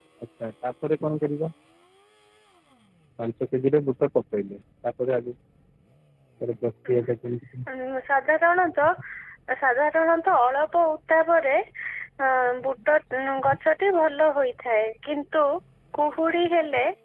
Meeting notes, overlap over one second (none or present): none